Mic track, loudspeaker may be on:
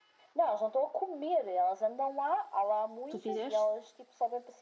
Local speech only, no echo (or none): Tu fizeste?